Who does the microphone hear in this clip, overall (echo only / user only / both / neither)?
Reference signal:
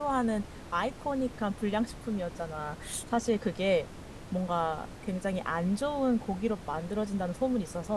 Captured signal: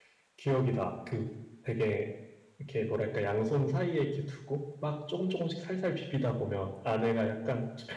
user only